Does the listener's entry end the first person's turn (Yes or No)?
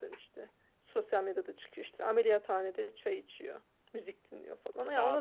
No